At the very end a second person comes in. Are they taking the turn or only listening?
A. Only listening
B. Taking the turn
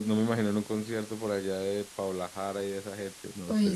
B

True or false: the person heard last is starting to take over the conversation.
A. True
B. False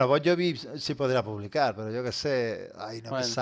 B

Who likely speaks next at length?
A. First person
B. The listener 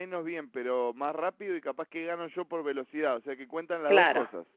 B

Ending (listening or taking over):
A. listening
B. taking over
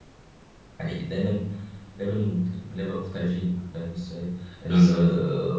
A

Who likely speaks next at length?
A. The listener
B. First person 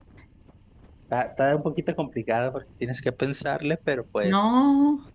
A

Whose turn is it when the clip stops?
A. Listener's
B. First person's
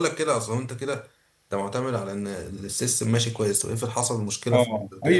A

